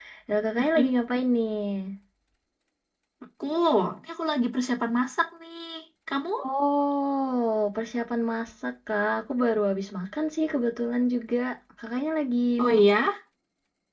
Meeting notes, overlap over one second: none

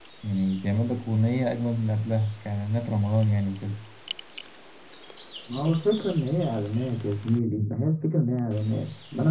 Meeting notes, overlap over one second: none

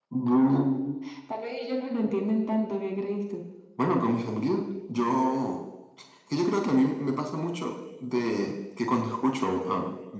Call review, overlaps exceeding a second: none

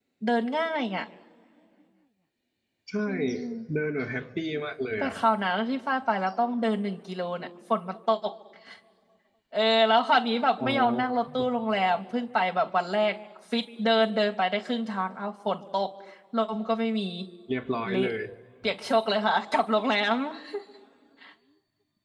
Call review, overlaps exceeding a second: none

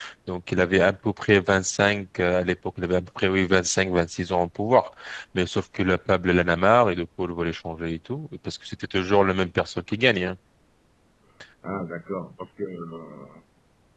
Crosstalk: none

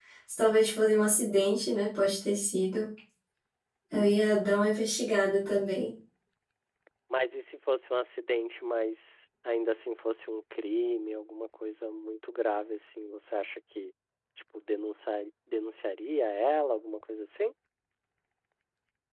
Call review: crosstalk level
none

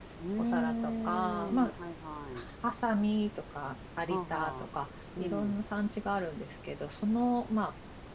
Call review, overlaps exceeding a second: present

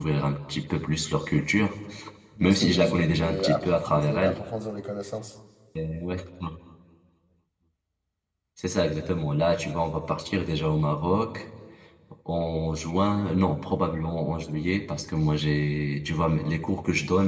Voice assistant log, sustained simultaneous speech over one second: present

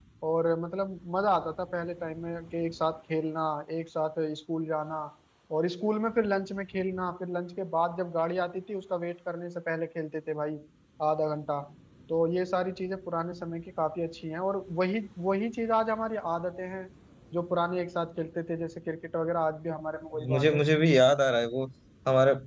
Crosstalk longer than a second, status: none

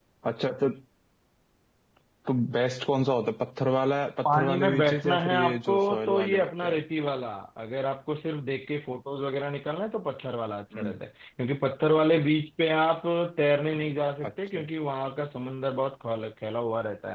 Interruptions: present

